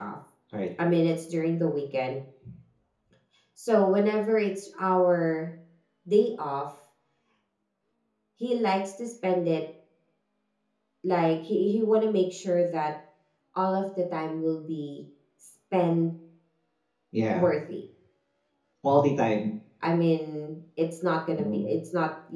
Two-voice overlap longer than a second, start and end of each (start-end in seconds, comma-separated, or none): none